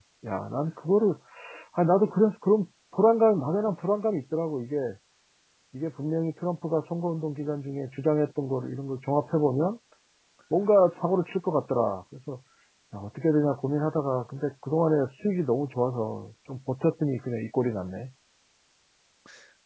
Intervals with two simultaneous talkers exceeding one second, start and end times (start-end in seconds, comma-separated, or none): none